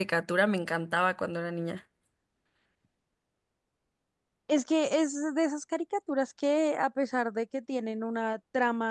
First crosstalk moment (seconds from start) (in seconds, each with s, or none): none